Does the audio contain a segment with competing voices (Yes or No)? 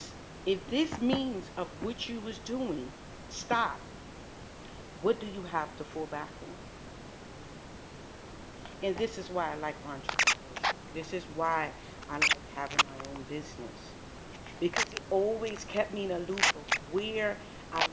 No